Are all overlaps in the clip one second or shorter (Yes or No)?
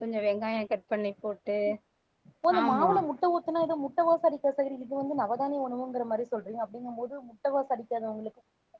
Yes